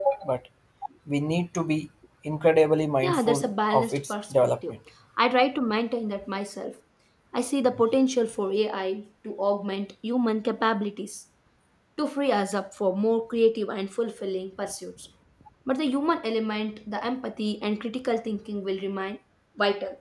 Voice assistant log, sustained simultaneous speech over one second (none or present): present